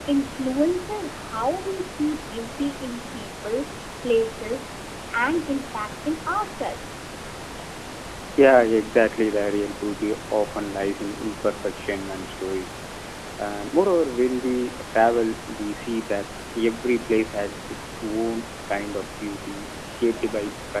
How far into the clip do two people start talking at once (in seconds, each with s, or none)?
none